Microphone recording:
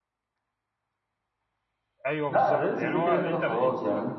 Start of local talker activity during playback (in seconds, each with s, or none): 2.1 s